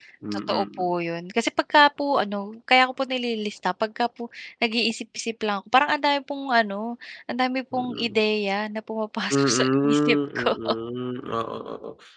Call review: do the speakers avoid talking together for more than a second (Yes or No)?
No